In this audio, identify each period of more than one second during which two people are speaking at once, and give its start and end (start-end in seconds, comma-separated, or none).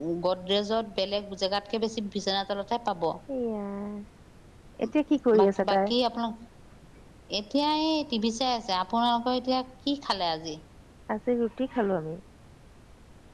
none